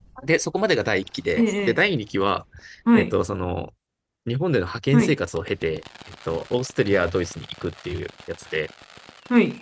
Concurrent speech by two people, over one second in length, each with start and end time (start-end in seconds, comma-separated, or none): none